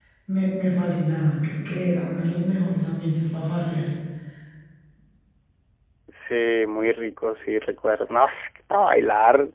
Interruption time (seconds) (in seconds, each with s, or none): none